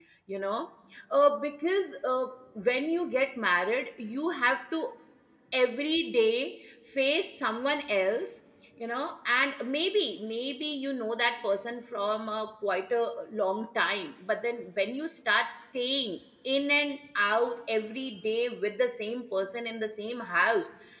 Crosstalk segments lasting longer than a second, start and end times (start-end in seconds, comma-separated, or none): none